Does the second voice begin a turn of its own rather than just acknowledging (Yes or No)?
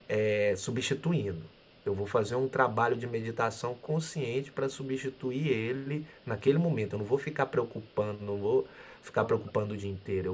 No